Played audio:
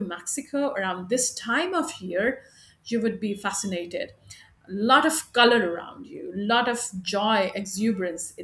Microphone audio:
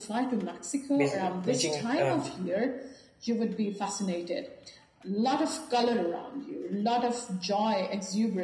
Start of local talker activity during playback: 1 s

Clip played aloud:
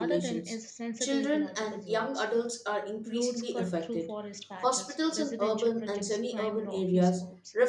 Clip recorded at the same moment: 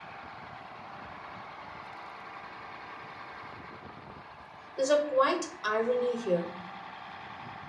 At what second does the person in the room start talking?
5 s

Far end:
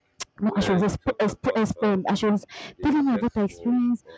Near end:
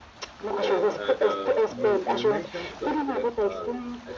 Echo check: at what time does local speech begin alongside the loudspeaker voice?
1 s

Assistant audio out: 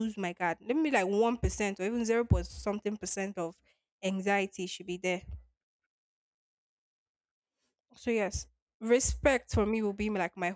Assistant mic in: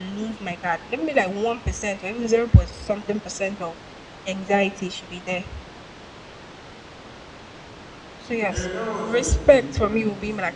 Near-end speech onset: 8 s

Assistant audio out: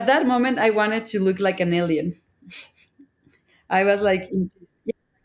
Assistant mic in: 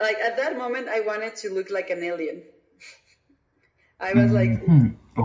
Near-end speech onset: 4 s

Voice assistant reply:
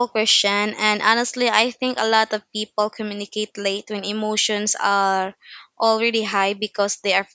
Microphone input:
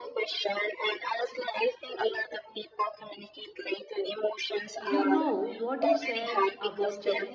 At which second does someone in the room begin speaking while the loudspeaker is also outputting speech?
5 s

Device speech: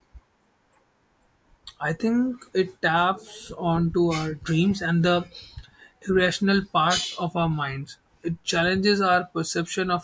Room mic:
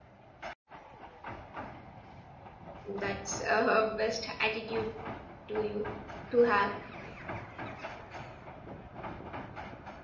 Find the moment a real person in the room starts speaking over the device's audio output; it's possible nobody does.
3 s

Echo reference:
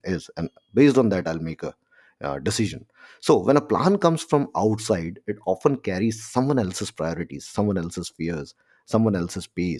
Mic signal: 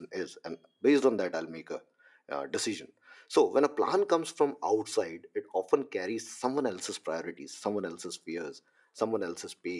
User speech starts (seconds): none

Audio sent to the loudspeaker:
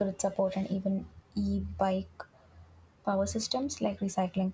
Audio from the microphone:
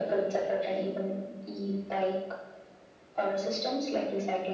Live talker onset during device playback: none

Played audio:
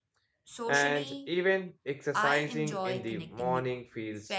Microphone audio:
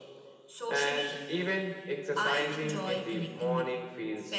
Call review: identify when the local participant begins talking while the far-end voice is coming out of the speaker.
none

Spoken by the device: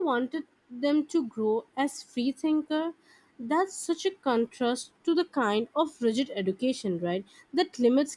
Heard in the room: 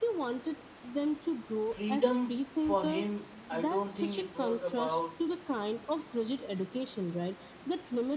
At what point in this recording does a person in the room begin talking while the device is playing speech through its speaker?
2 s

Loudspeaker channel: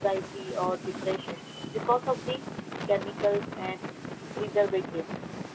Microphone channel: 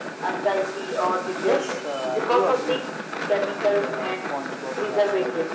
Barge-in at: 1 s

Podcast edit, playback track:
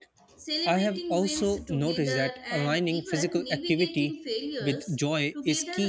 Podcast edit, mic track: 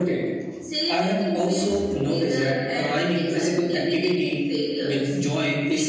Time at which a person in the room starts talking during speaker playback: none

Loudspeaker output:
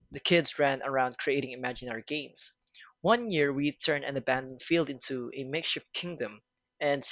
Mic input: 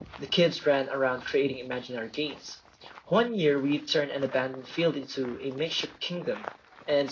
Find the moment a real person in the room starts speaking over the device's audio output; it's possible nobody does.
none

